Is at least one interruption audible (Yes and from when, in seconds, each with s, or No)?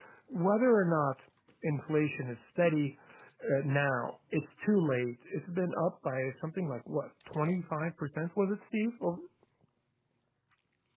No